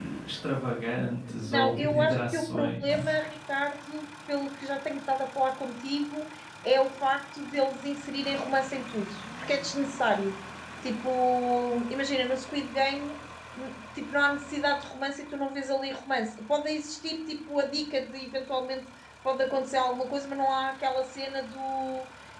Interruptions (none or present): present